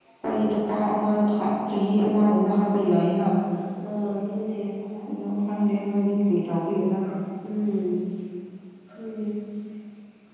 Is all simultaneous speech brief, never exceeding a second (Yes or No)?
Yes